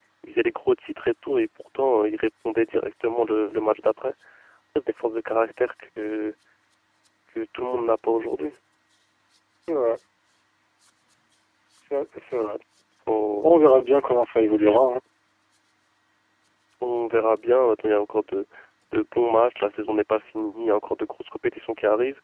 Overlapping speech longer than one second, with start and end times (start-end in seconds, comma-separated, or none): none